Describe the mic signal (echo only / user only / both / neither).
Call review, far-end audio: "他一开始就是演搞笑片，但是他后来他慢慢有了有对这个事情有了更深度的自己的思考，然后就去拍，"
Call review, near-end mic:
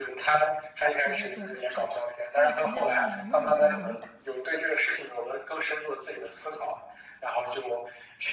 both